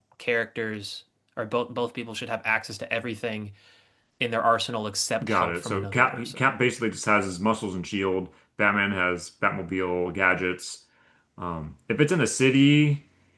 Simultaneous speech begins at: 5.2 s

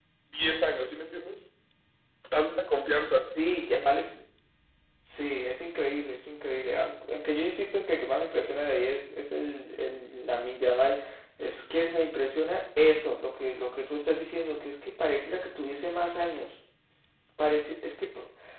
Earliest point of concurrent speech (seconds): none

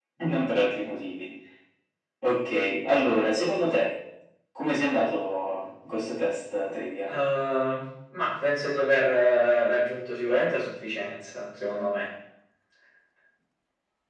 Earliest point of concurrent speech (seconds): none

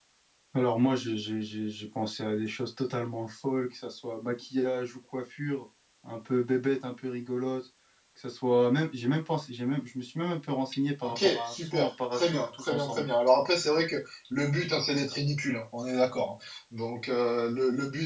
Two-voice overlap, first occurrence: 11.0 s

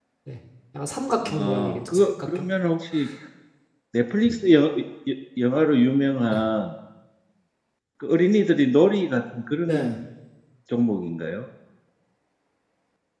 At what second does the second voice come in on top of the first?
1.2 s

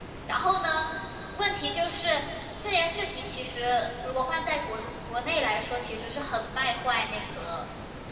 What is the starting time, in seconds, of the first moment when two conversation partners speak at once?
none

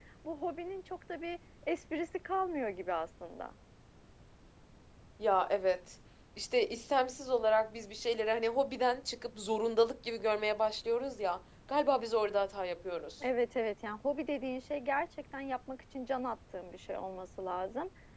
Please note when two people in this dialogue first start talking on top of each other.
none

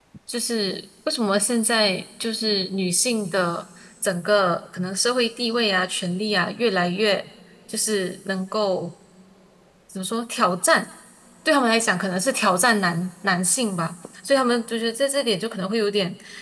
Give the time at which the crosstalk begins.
none

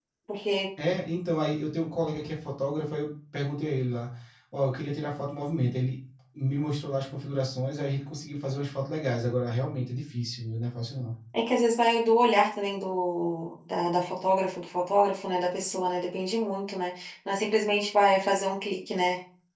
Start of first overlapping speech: none

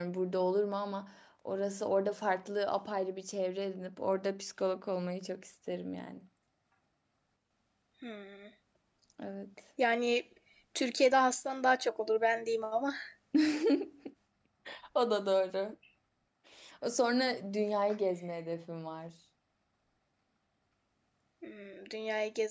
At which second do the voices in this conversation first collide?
none

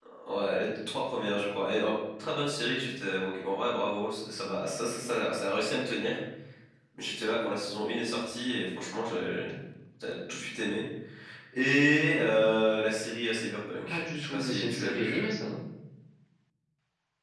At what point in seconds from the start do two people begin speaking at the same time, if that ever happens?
13.9 s

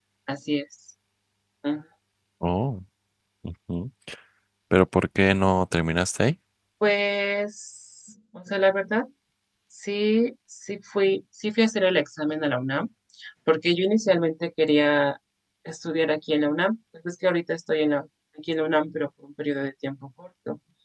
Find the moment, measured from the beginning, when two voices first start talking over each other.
none

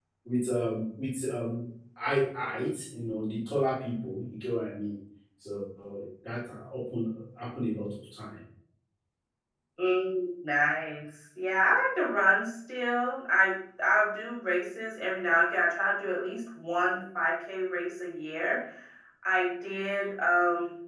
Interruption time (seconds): none

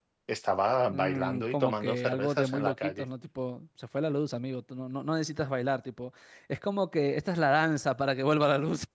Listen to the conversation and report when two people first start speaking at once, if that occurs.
0.9 s

